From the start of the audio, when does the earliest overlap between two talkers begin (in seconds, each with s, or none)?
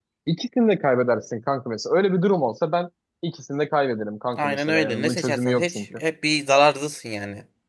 4.4 s